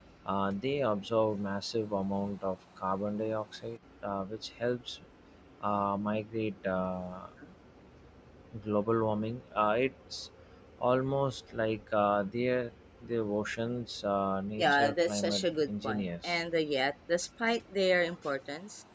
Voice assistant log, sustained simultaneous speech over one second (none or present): present